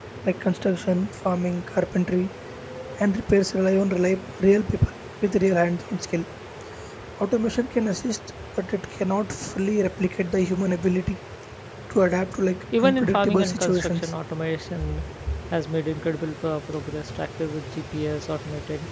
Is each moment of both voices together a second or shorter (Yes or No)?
No